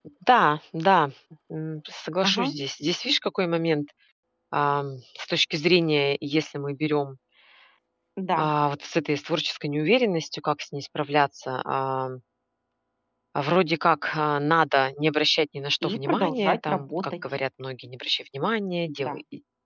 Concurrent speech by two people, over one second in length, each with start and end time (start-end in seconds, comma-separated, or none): 15.8-17.2